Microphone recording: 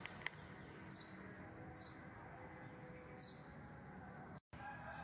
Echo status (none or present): none